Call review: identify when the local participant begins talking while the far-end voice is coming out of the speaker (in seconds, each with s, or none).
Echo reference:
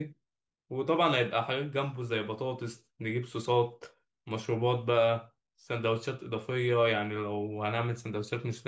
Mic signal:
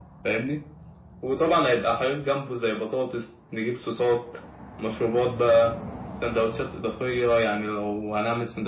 none